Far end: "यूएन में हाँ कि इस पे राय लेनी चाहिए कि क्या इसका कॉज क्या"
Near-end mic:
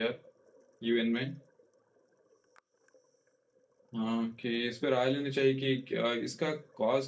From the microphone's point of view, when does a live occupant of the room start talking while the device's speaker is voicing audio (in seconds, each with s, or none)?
none